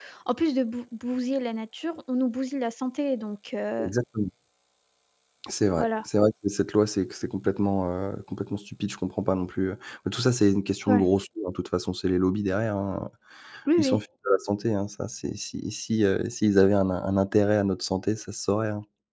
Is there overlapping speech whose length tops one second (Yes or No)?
No